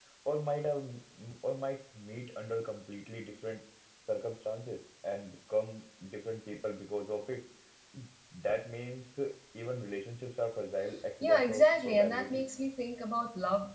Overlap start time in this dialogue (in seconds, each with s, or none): 11.2 s